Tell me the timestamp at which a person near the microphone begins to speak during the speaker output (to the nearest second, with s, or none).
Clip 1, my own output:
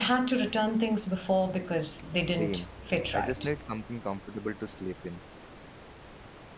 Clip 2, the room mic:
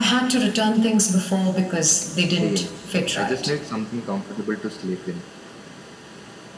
none